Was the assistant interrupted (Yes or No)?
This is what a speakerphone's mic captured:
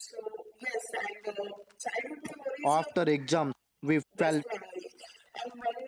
Yes